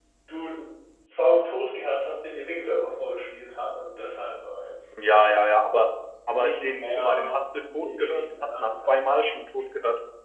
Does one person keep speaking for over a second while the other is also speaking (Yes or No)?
Yes